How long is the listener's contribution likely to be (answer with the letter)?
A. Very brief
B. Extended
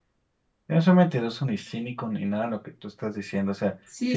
B